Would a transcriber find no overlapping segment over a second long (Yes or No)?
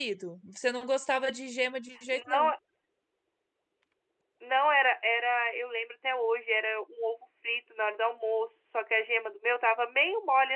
Yes